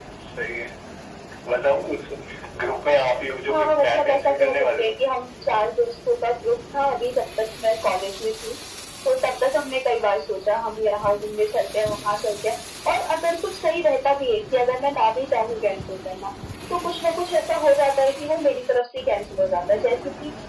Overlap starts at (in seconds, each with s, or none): 3.5 s